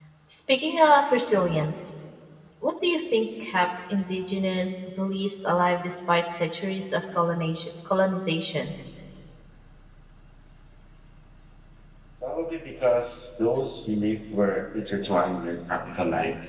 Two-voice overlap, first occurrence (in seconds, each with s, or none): none